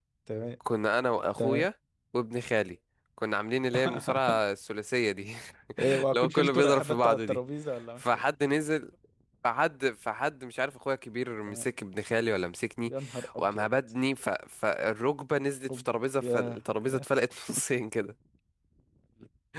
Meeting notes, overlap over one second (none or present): present